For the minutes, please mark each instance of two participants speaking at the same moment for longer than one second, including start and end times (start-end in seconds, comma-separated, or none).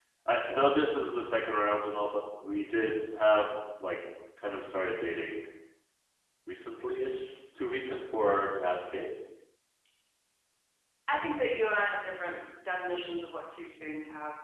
none